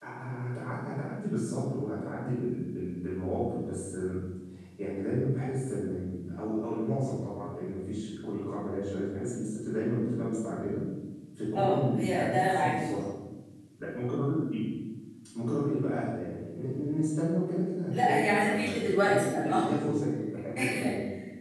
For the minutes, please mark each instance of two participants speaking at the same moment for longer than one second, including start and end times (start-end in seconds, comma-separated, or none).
11.5-13.0, 17.9-19.7